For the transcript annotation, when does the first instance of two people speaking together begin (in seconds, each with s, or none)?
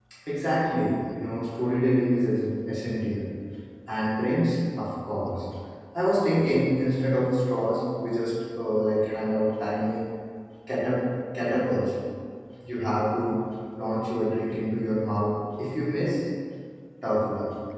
none